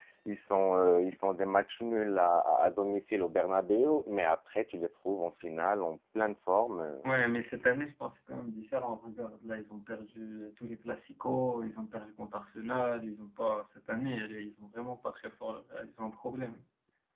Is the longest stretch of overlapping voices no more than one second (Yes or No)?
Yes